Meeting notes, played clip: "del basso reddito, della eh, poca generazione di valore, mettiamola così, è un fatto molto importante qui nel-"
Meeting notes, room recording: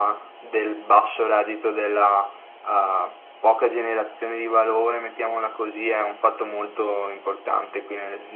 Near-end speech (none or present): none